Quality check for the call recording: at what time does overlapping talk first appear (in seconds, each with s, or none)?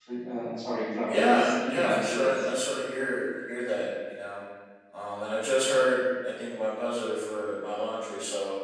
1.1 s